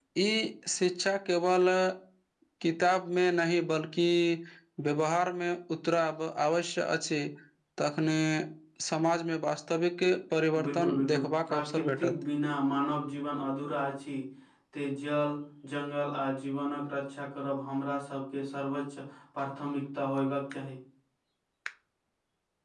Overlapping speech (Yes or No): Yes